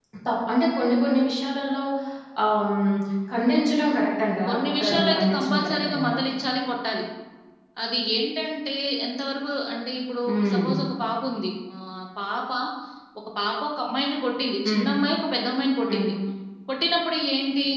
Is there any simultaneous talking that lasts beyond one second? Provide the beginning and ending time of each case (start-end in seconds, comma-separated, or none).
4.5-6.2